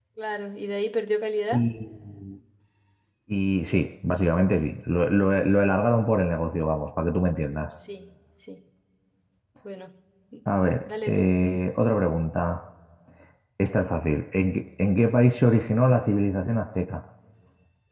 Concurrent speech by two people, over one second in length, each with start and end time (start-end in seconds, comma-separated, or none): none